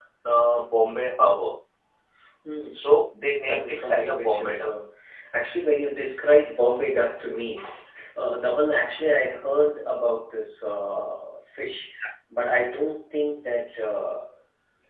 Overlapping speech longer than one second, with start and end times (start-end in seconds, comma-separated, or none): 3.5-4.7